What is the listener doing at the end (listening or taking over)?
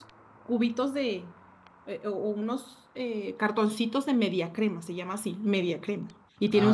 listening